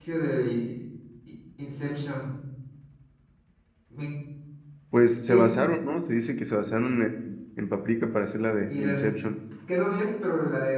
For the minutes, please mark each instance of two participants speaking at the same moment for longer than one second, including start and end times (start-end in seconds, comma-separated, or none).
none